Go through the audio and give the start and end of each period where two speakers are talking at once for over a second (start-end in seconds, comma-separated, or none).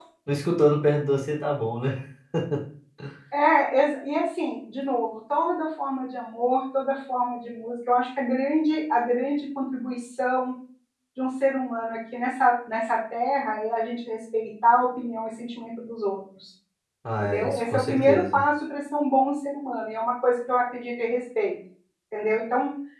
17.2-18.4